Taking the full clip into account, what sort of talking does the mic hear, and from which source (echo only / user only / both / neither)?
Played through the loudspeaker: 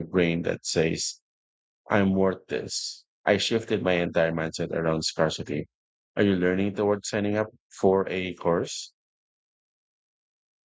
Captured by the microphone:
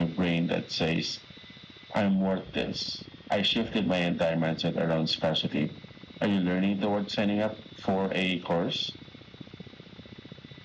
echo only